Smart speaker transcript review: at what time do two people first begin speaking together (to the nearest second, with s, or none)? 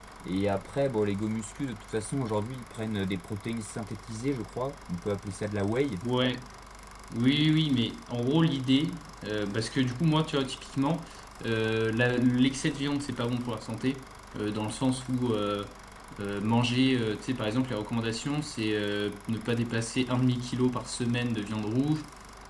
none